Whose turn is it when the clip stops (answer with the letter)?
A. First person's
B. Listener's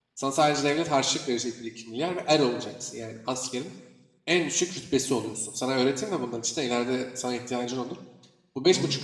A